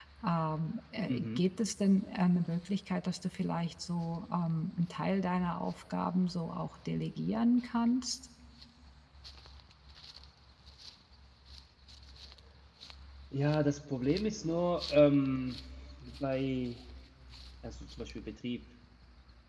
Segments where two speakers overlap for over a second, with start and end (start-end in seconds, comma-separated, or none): none